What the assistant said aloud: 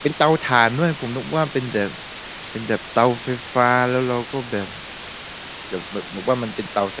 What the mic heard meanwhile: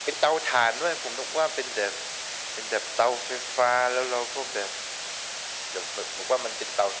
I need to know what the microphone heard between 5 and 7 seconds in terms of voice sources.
echo only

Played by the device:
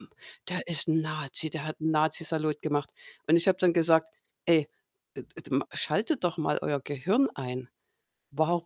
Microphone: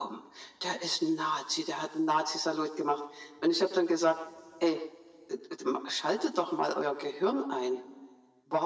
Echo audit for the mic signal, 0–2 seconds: echo only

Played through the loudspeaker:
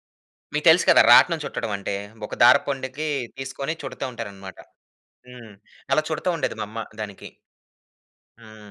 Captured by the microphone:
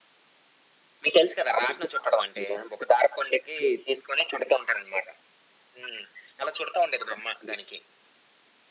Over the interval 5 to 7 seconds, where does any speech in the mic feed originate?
echo only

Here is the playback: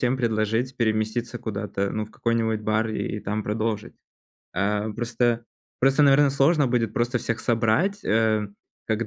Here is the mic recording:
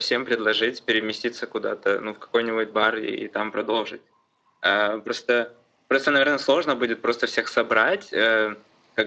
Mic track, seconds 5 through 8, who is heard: echo only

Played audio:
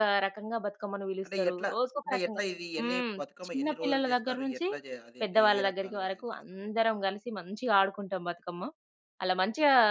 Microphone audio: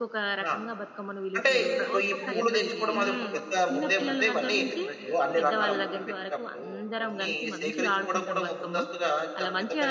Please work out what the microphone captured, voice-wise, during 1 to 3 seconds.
both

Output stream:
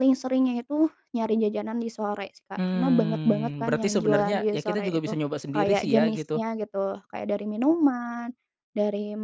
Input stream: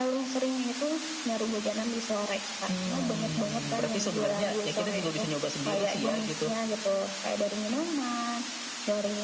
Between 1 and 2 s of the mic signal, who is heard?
echo only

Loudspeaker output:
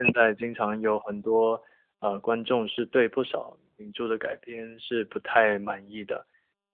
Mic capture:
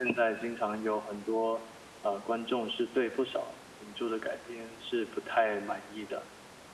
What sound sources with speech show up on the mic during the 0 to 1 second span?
echo only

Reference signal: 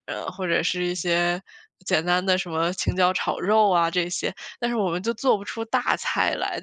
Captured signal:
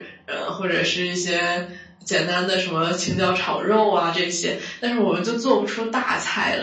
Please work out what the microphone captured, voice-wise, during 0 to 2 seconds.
echo only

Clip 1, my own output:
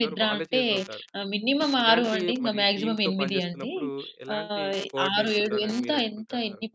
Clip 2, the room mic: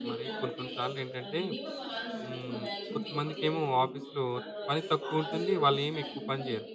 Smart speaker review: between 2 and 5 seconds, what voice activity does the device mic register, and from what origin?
both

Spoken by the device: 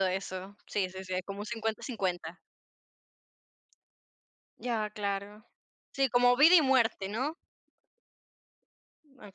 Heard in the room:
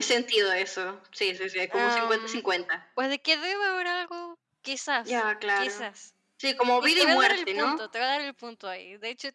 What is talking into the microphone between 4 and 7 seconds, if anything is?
both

